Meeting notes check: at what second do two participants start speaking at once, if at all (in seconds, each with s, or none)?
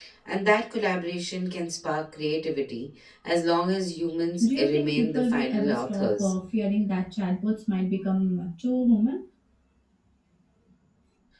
4.4 s